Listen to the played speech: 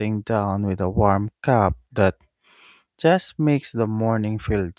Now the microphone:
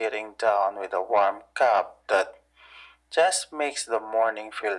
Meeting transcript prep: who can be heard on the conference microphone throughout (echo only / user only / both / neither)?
echo only